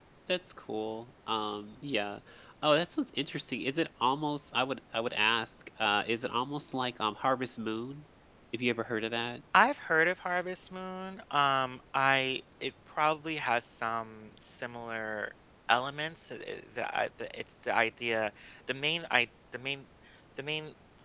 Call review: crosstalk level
none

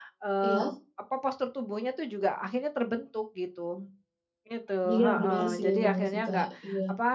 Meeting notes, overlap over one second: present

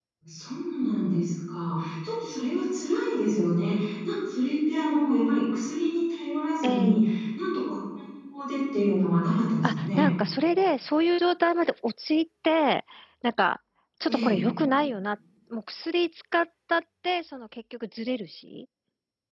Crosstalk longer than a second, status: none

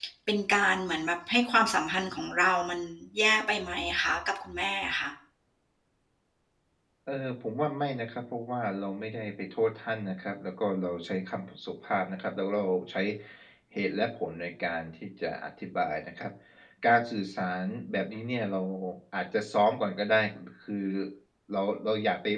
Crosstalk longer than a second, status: none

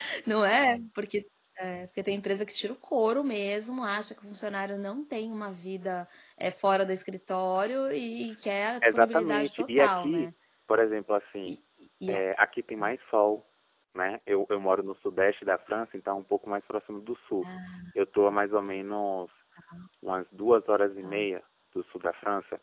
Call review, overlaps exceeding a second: present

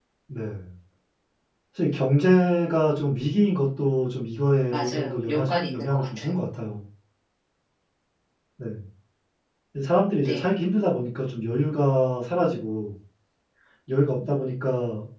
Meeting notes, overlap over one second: present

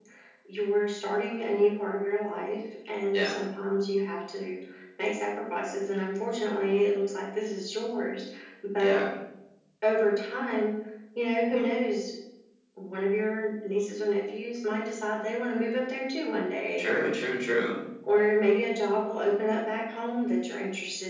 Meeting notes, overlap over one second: none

